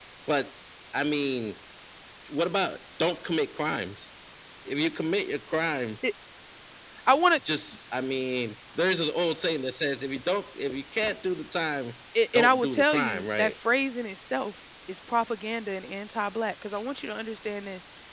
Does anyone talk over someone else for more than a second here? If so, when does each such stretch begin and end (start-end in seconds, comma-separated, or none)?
12.3-13.5